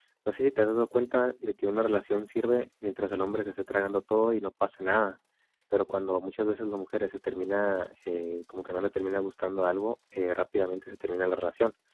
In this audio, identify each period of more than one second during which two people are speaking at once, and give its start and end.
none

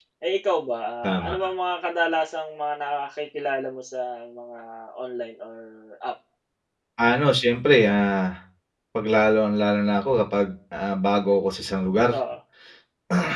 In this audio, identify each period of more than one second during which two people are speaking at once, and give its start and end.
none

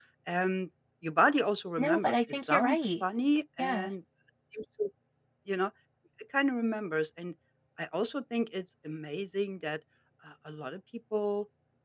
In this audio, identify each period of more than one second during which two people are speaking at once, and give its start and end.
1.8-3.0

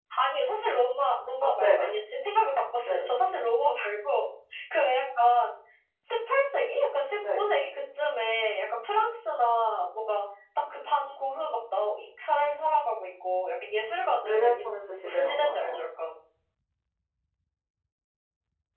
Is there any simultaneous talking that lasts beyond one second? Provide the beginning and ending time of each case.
14.2-15.8

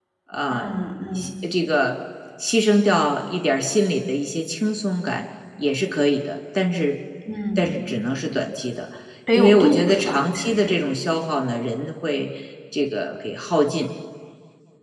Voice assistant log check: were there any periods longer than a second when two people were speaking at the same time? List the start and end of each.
9.3-10.8

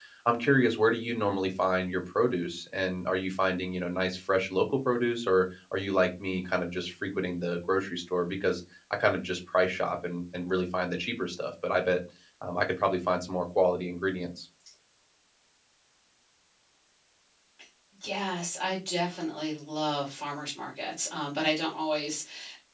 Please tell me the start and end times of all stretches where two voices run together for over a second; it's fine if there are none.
none

